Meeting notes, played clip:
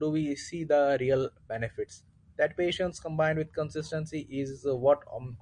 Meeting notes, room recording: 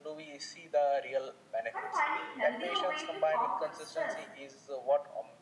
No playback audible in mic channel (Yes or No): No